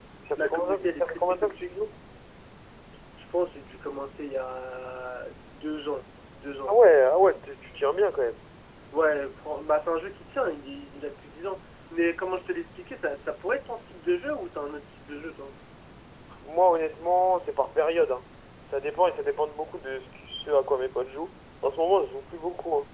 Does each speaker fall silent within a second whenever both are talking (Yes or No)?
No